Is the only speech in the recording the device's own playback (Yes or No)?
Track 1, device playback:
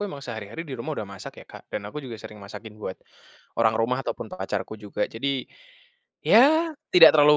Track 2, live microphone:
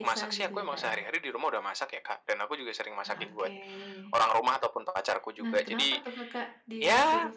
No